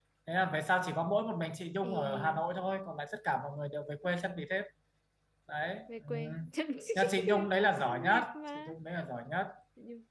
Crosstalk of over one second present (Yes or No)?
Yes